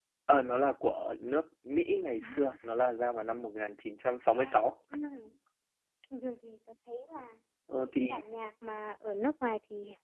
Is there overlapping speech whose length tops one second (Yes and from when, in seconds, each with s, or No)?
No